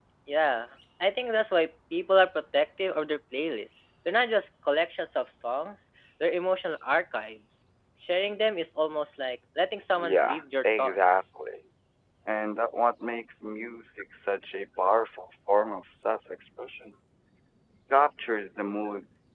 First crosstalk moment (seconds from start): 10.0 s

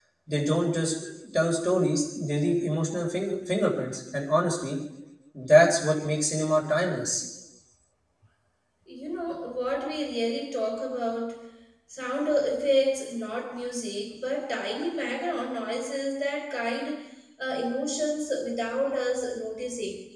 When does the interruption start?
none

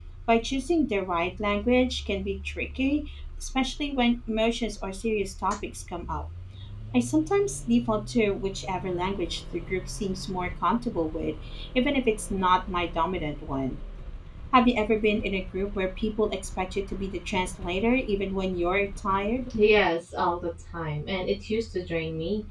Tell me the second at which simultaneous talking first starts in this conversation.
none

